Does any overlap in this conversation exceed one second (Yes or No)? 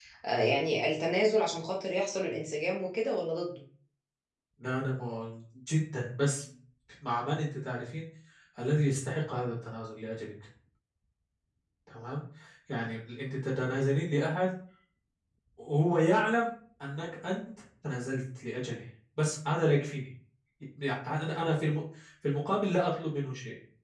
No